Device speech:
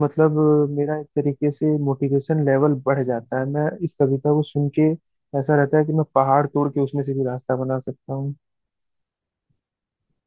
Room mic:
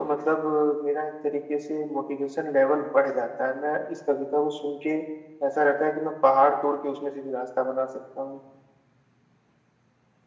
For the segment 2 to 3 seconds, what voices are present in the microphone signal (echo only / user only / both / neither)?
echo only